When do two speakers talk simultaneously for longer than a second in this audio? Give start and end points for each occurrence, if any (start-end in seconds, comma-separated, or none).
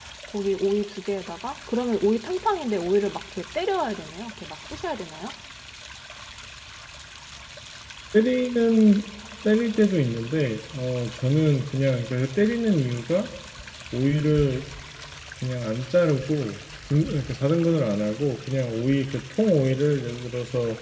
none